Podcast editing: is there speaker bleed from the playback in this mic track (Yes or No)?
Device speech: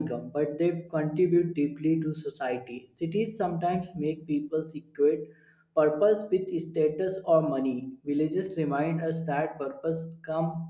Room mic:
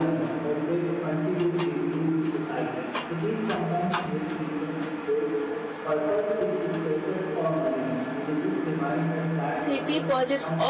Yes